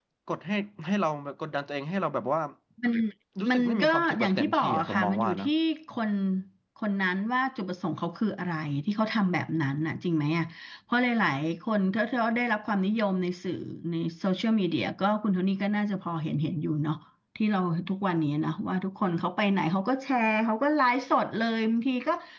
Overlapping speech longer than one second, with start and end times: 3.5-5.5

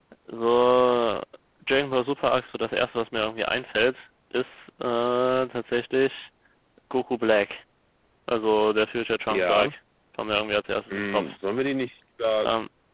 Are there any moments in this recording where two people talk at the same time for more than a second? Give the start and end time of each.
none

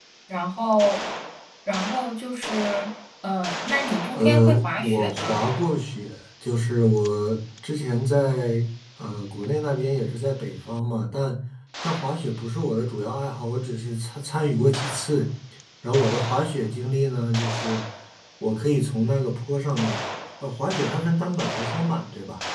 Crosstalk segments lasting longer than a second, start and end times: 4.2-5.4

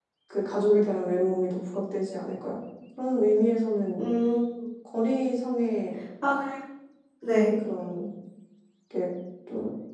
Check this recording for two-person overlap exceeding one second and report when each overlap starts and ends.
none

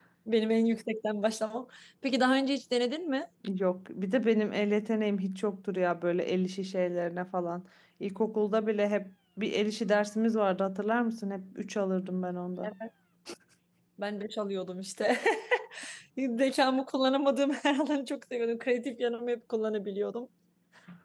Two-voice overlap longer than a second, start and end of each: none

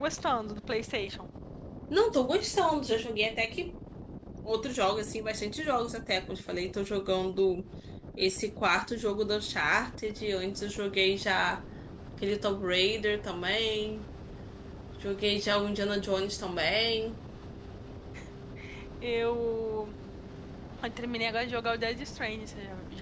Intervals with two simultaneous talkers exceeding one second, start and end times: none

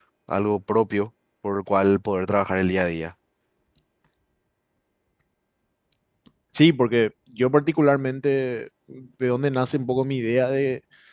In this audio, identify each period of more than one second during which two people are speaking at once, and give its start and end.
none

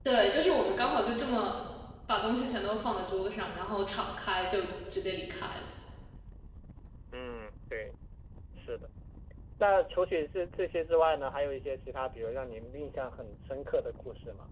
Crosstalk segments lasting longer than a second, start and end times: none

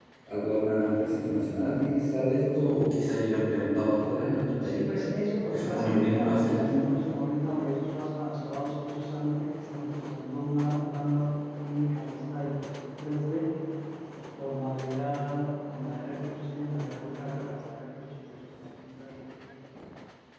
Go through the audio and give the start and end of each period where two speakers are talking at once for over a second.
5.5-6.8

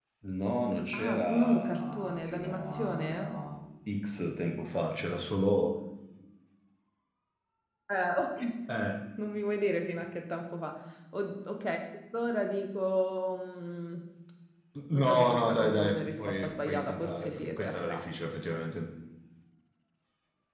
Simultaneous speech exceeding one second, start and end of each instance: 0.9-3.3, 14.9-18.0

